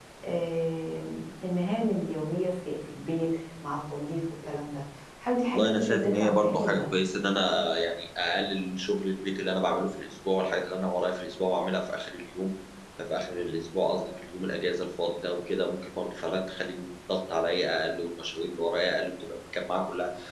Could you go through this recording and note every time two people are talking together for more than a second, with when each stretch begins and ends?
5.5-6.8

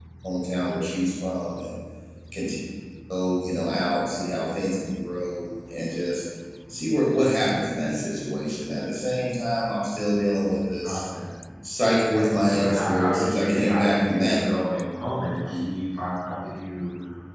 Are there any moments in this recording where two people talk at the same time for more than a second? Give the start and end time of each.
12.1-14.4

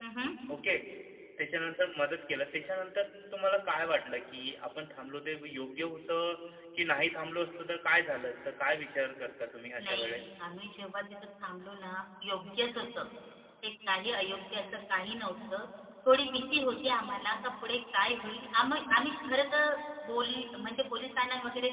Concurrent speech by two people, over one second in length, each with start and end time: none

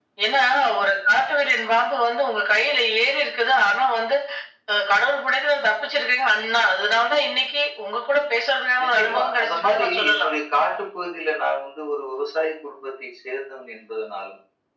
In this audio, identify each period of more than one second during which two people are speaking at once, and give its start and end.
8.8-10.3

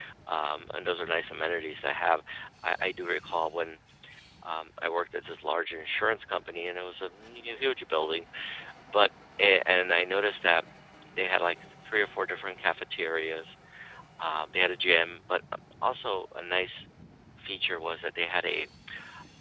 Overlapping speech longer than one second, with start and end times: none

